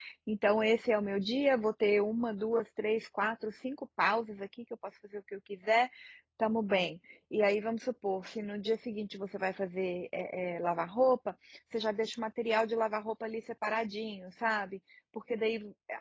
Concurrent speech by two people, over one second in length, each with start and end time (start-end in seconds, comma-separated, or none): none